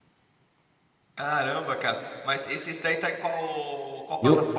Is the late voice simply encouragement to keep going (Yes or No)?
No